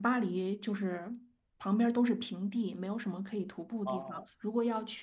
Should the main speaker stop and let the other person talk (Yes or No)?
No